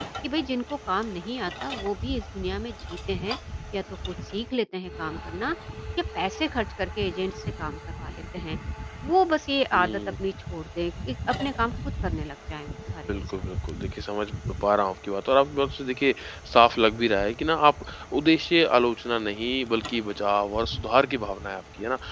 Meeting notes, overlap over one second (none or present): none